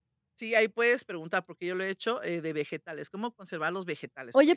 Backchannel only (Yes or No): No